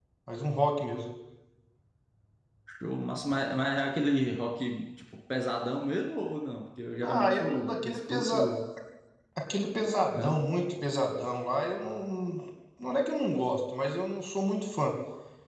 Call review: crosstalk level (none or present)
present